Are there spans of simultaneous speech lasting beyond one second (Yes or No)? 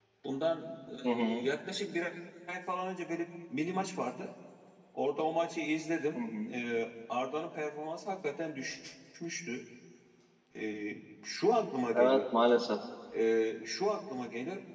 No